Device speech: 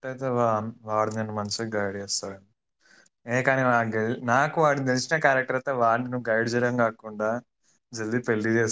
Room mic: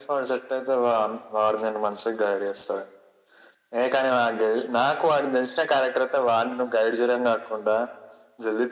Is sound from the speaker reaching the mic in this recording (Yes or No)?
Yes